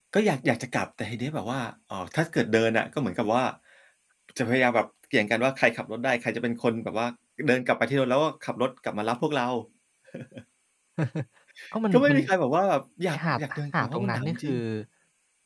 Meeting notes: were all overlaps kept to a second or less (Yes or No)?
No